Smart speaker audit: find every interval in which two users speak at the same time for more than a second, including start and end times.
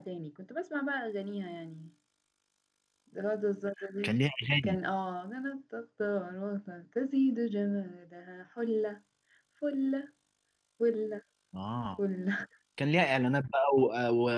none

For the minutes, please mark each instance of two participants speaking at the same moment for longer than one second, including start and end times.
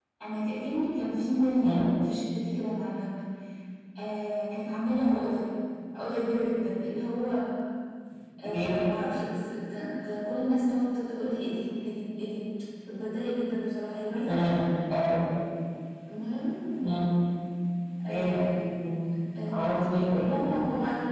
none

